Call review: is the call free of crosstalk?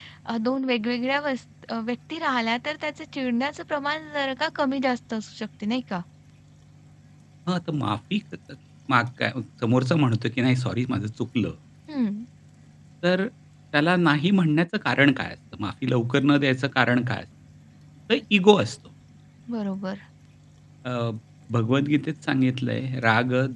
Yes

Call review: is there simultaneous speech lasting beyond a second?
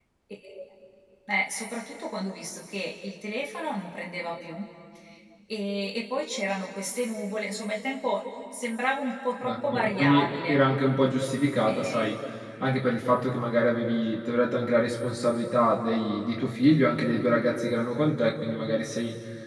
Yes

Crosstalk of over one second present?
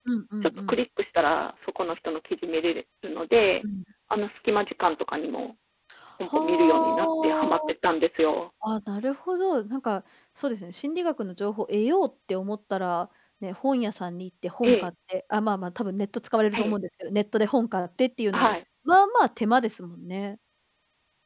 Yes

